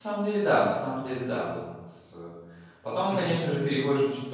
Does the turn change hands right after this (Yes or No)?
No